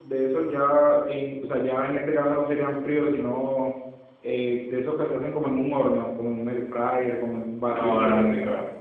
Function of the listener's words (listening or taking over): listening